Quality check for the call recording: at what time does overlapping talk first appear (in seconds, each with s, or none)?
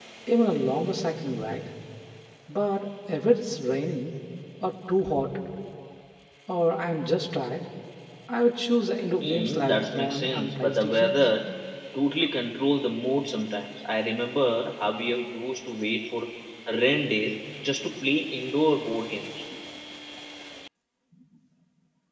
9.2 s